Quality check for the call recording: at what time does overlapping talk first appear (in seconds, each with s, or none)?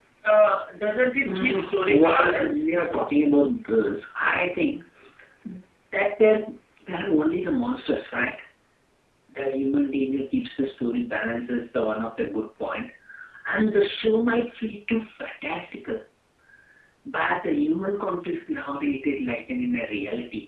1.2 s